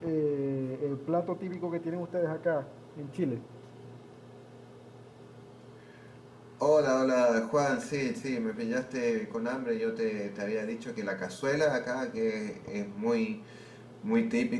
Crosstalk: none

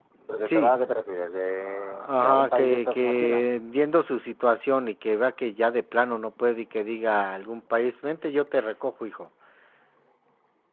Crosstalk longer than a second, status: present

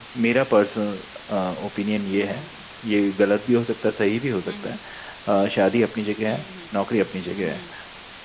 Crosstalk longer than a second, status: none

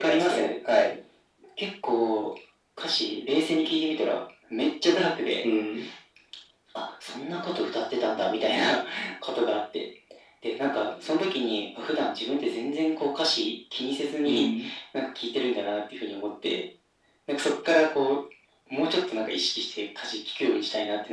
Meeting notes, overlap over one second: none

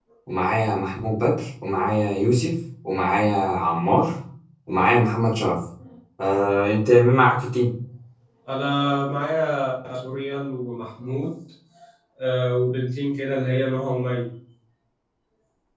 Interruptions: none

